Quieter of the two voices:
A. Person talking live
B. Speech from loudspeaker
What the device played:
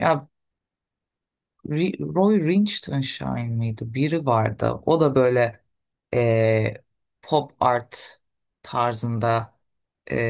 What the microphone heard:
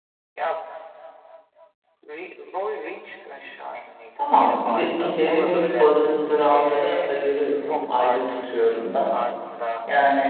B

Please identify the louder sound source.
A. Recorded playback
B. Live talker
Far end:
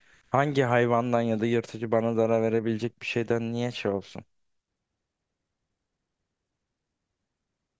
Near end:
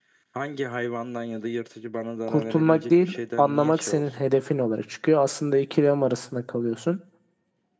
B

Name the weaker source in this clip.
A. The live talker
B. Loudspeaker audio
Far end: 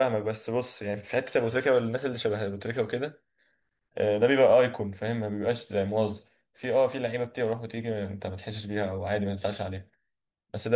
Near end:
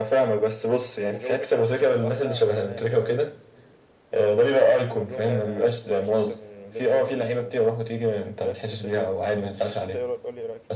A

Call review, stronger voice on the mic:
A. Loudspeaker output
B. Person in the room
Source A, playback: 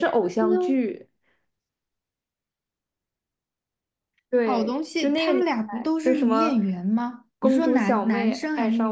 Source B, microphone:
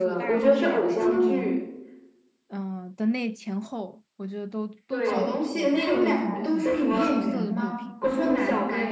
A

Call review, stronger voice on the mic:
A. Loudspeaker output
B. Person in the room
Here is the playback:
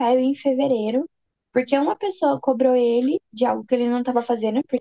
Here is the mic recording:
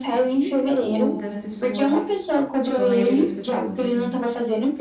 A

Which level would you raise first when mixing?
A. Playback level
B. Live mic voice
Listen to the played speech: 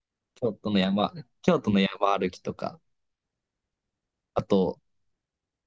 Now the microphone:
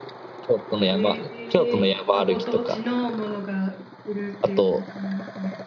B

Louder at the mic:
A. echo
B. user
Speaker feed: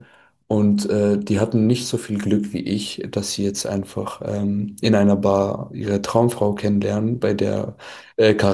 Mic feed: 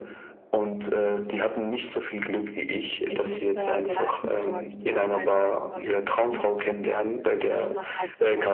A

